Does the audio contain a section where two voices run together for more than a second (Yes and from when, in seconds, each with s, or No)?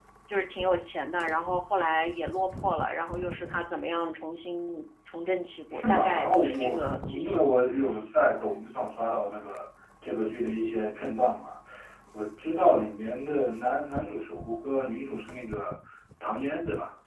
Yes, from 5.7 s